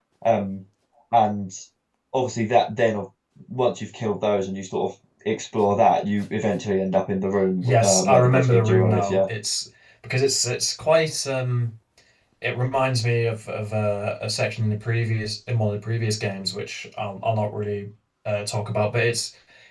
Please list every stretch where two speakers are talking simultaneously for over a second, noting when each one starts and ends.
7.6-9.2

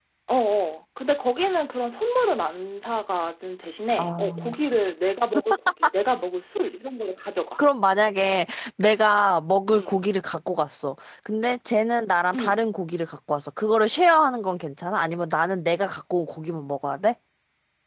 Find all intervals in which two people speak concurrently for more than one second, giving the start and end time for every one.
none

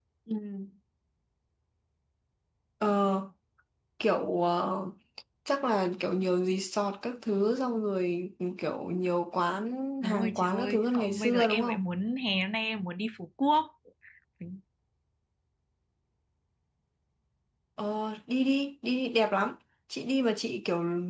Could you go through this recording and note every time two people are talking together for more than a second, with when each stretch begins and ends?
10.0-11.8

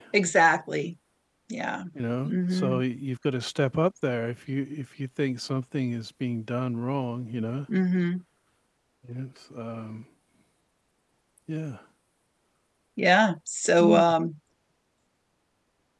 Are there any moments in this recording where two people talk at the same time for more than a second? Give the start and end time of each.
none

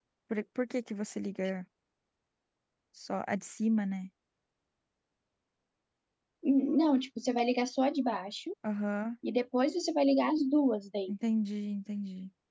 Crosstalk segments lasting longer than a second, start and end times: none

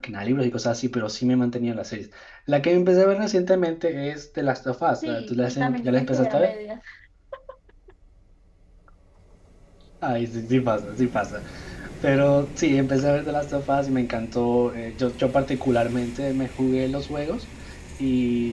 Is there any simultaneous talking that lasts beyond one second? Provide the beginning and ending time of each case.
5.0-6.5

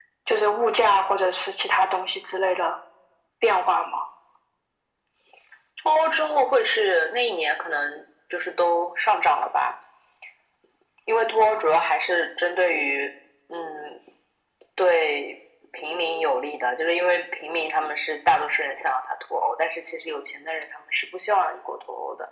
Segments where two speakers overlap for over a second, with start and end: none

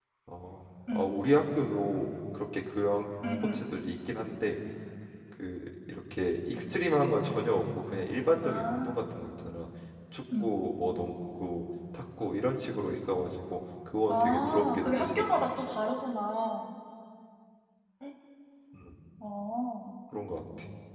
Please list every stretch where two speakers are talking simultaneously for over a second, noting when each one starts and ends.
14.1-15.3

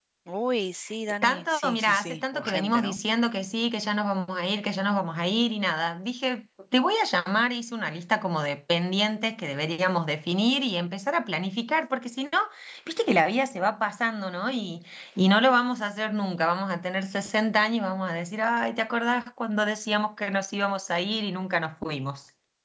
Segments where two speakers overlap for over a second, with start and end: 1.2-3.0

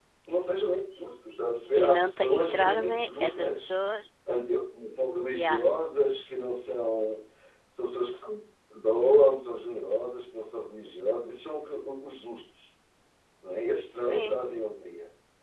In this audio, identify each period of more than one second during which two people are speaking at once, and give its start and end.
1.7-3.7

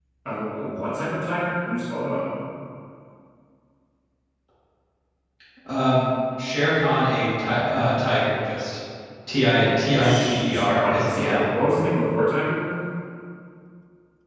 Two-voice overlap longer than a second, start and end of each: 10.0-11.5

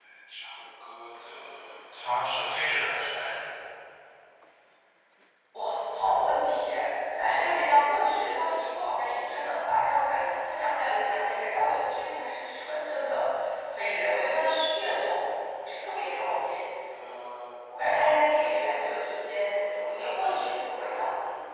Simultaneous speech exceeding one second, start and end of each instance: none

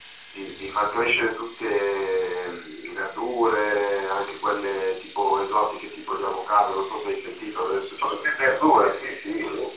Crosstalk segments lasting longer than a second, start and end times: none

